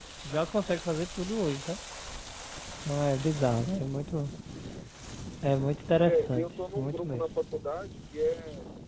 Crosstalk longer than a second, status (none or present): present